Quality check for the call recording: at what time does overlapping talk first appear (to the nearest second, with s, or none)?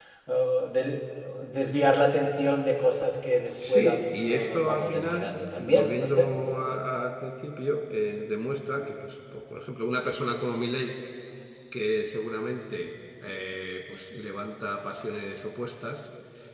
4 s